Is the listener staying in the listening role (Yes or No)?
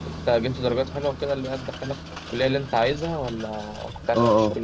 No